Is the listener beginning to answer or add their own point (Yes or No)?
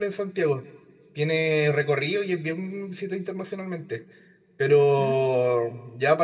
No